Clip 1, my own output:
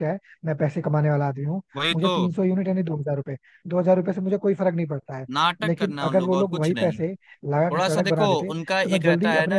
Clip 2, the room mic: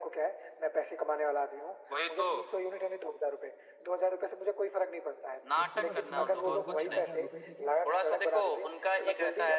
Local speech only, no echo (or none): उनको बस दो दो हजार चार हजार रुपए देके